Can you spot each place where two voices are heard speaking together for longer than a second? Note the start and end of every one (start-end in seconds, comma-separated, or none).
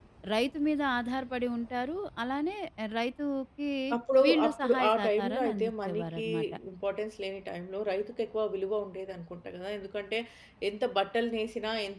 4.2-6.2